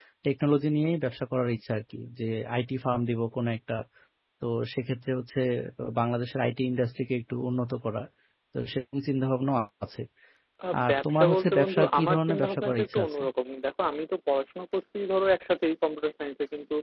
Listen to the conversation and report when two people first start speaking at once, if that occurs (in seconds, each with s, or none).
10.8 s